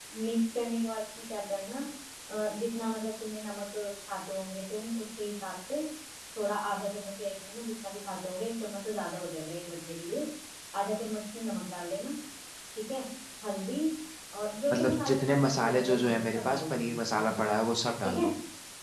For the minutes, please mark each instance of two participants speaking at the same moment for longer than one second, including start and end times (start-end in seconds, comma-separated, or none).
14.7-17.2